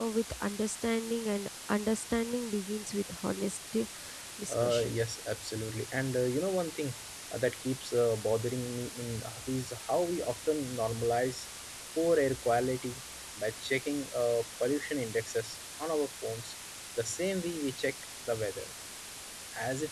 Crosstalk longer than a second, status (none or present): none